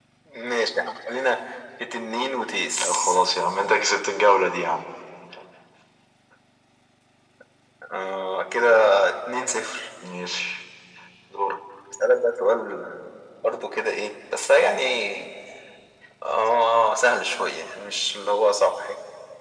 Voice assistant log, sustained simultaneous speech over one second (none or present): none